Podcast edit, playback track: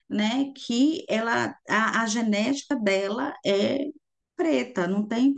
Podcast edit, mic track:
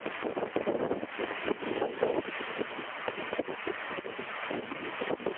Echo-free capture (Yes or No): Yes